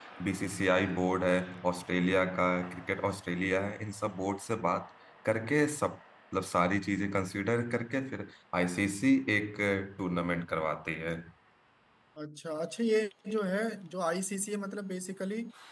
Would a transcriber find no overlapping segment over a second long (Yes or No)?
Yes